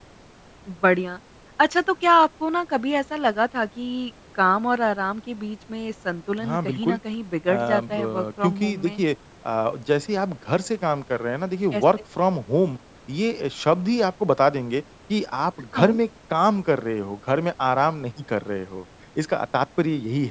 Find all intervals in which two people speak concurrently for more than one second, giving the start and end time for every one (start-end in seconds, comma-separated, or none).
7.5-9.0